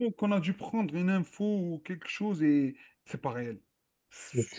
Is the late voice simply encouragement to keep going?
Yes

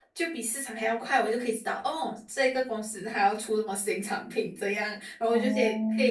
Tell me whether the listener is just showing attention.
Yes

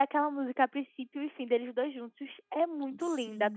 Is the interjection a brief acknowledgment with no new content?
No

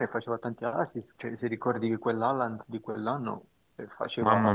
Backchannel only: Yes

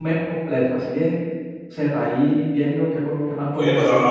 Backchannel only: No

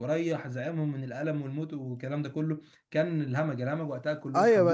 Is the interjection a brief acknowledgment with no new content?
No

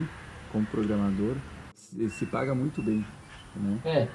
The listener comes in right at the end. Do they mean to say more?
Yes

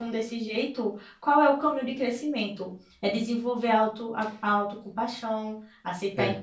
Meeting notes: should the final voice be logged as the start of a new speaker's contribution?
No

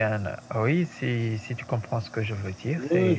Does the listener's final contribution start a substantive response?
Yes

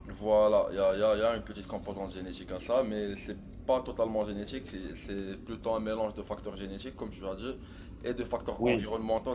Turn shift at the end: No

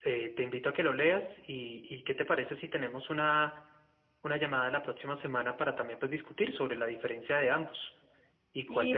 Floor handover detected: Yes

